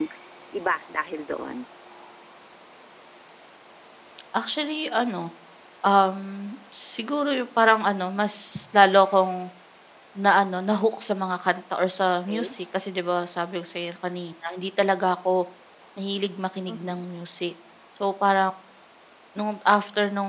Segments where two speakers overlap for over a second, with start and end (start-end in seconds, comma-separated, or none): none